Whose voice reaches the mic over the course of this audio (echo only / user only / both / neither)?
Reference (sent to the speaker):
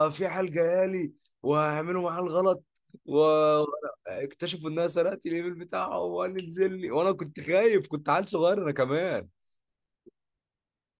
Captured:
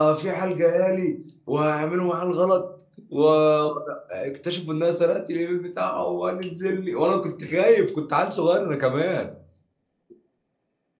echo only